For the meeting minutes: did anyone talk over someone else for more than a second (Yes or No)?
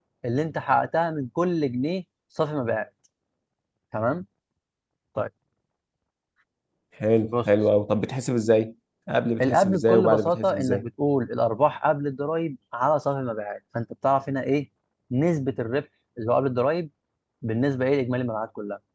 Yes